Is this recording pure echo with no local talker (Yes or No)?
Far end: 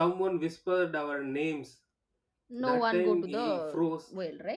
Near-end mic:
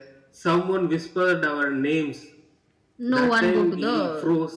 Yes